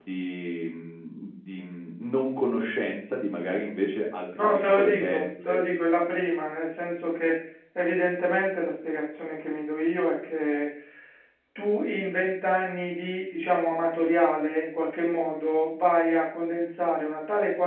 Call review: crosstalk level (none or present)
present